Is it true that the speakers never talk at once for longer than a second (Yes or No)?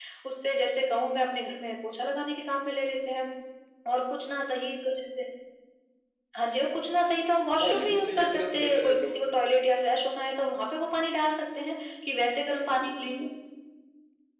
No